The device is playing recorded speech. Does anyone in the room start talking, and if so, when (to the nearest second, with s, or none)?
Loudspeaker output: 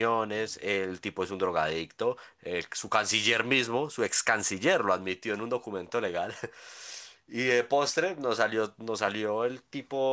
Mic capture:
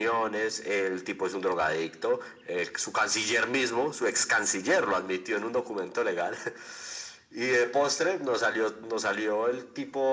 none